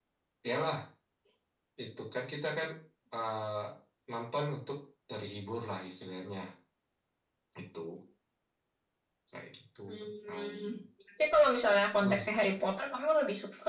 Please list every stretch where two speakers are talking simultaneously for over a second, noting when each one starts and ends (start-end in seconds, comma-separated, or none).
none